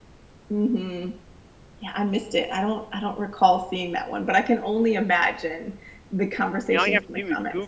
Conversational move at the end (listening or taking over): taking over